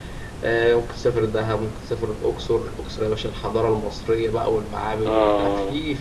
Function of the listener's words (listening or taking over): listening